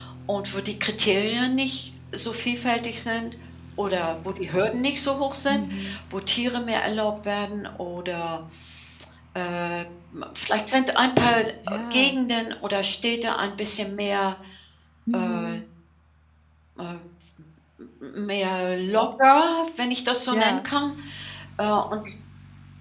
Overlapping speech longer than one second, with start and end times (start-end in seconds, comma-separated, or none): none